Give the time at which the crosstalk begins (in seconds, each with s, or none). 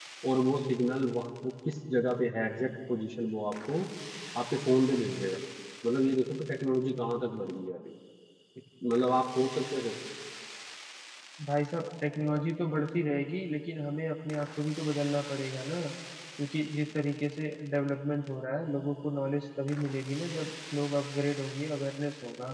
none